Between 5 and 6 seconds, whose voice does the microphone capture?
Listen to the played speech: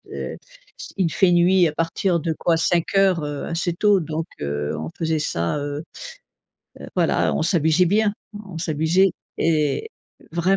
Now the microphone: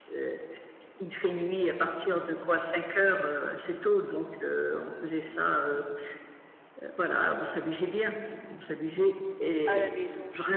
echo only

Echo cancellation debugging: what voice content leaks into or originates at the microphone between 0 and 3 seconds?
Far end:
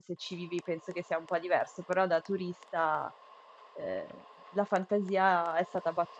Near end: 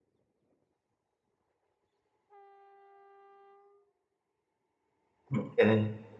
neither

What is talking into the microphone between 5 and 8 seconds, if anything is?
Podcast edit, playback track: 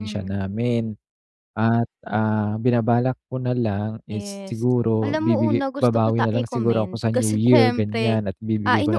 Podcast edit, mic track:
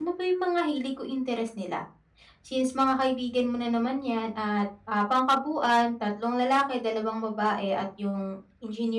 user only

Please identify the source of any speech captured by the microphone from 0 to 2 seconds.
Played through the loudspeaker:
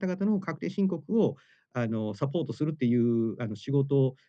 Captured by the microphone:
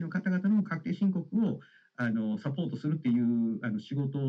echo only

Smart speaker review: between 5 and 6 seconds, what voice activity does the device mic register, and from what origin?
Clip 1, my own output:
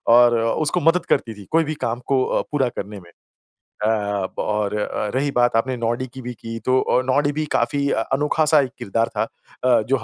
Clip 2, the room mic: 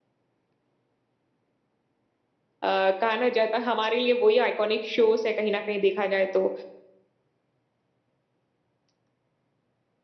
user only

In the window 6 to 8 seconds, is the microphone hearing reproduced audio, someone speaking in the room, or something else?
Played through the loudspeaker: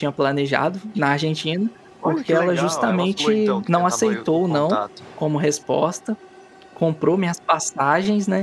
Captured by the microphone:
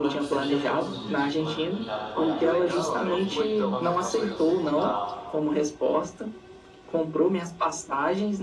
echo only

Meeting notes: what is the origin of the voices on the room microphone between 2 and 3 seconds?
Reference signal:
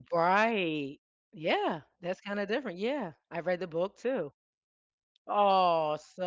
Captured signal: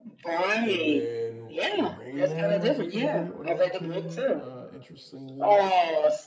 both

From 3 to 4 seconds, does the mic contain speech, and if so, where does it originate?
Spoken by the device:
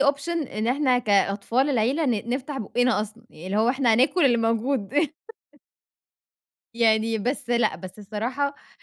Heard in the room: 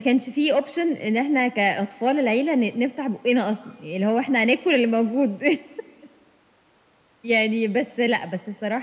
echo only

